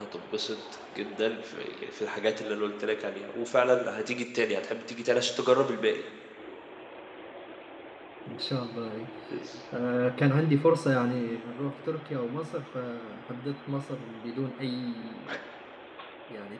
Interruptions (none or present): none